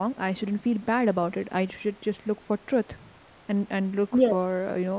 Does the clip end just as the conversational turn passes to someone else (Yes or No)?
No